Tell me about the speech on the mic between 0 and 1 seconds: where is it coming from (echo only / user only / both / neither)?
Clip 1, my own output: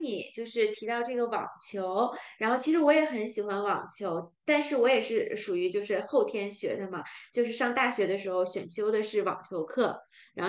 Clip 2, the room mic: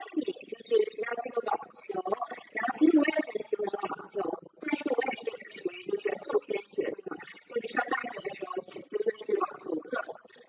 echo only